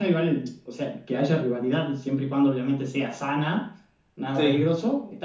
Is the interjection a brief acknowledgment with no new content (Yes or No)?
Yes